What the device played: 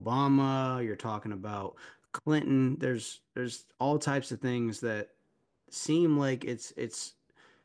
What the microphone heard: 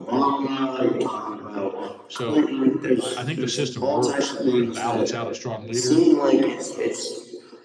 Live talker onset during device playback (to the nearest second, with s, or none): 2 s